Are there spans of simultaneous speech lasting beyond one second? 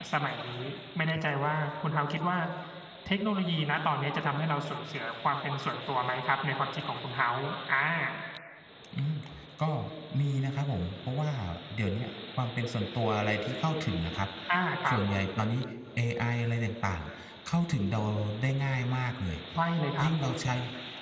No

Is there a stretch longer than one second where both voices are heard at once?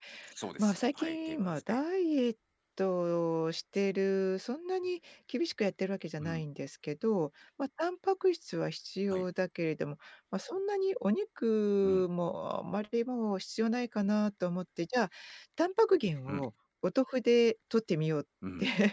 Yes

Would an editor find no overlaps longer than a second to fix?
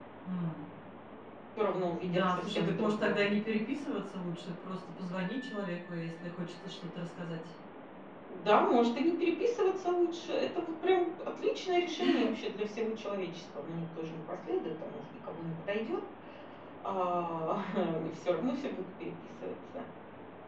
No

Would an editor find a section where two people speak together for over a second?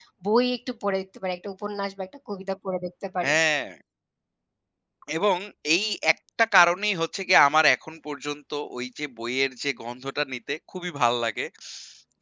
No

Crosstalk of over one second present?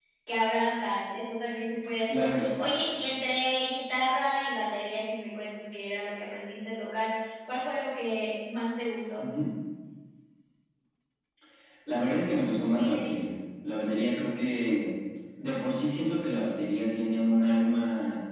No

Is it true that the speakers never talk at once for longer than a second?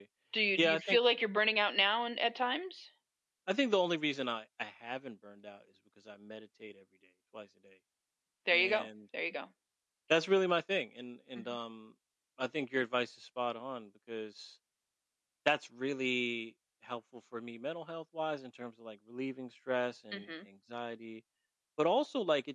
Yes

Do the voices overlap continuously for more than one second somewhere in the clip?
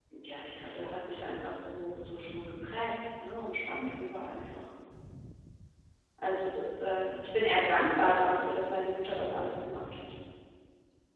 No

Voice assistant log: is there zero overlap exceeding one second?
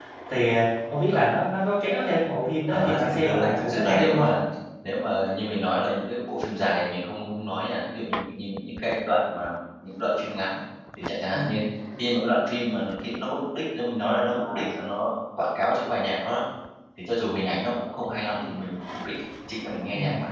No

